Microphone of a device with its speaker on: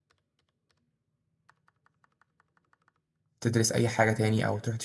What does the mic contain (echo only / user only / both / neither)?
user only